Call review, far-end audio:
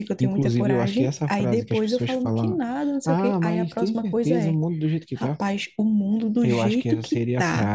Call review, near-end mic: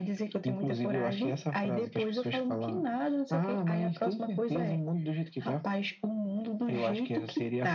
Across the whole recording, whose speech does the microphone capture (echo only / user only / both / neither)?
echo only